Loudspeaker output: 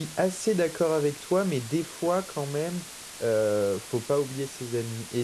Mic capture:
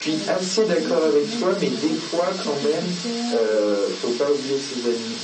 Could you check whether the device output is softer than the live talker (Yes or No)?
No